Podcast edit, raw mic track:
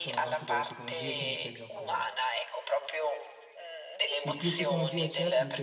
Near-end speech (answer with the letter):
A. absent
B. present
B